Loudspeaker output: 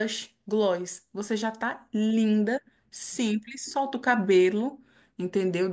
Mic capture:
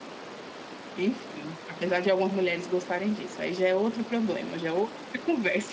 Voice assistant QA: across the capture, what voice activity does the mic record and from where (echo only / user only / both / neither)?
user only